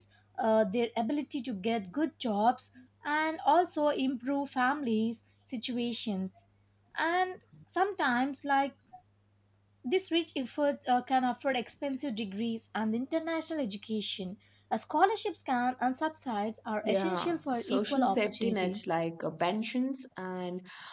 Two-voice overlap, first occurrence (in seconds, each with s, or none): 16.8 s